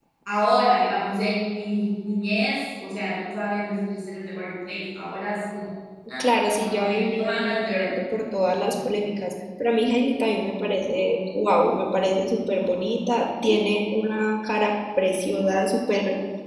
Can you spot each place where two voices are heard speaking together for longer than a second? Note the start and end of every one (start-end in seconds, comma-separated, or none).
6.2-7.9